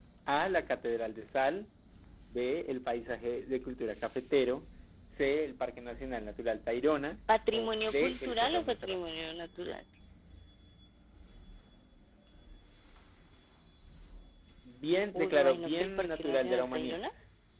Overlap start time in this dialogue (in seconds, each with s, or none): 7.5 s